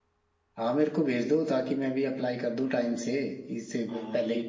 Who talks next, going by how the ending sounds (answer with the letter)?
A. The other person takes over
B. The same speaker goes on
A